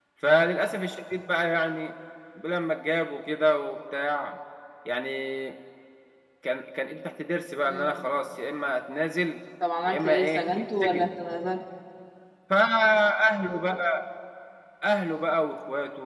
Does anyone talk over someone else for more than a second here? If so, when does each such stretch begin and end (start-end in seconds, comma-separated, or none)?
9.8-11.1